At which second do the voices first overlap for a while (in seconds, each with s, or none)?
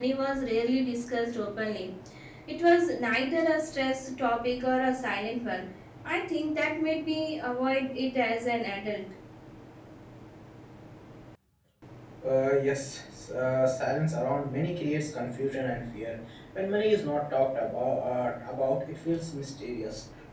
none